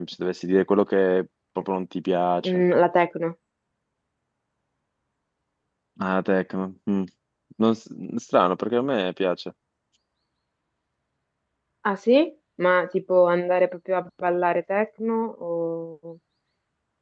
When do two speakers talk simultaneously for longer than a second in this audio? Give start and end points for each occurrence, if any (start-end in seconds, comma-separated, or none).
none